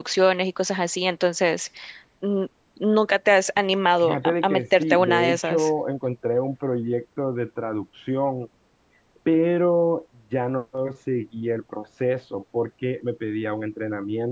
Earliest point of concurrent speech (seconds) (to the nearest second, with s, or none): 4 s